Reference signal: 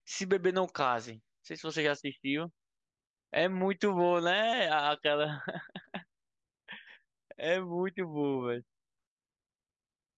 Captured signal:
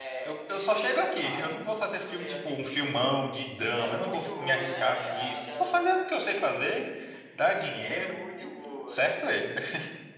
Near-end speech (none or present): present